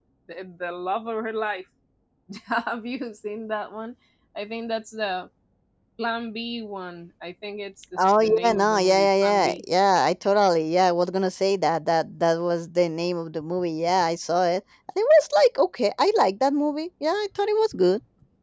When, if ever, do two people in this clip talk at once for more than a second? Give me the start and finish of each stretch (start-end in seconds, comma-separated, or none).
8.0-9.6